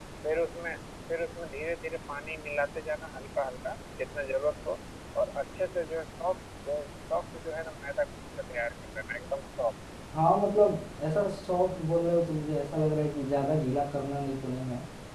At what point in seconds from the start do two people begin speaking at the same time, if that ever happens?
none

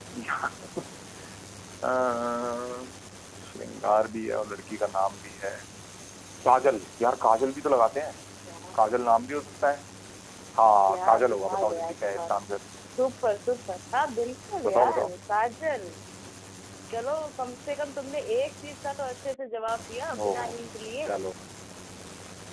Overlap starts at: 10.9 s

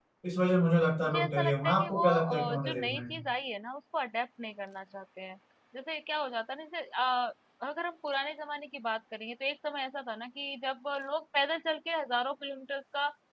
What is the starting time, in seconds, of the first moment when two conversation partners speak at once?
1.0 s

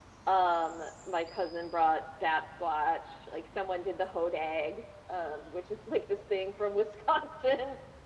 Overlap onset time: none

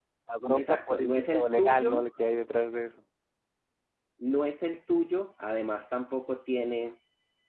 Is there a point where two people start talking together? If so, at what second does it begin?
0.6 s

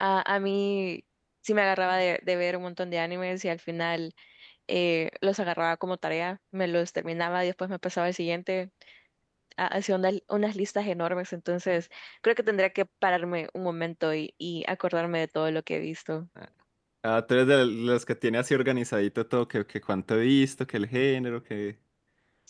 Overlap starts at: none

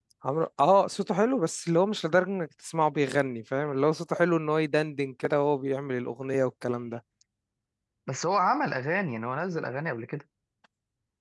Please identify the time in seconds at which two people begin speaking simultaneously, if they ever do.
none

